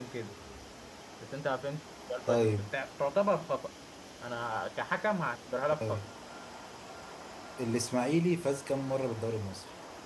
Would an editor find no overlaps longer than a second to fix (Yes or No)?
Yes